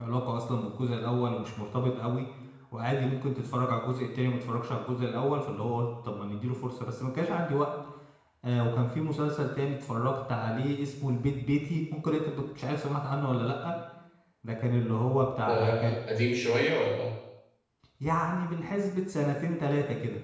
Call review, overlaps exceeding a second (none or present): none